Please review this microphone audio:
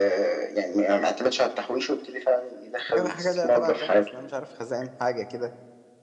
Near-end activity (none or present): present